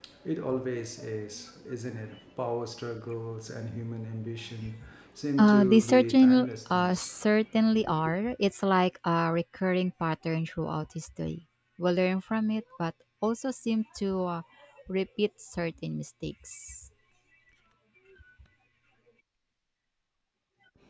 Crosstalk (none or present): present